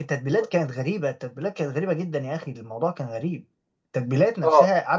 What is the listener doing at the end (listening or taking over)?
listening